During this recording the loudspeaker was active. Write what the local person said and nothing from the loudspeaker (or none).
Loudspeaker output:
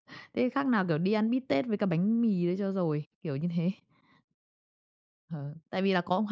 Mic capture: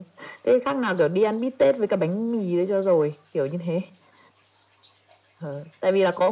none